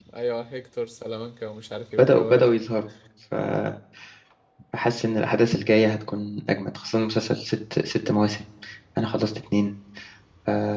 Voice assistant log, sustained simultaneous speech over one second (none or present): none